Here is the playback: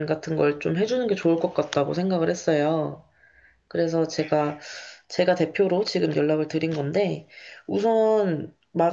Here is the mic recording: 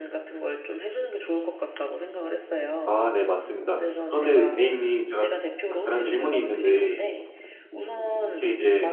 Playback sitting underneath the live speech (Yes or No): Yes